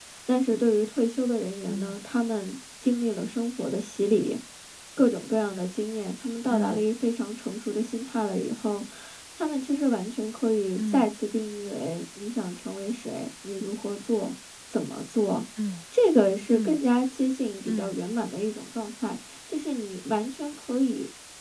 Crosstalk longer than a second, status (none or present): none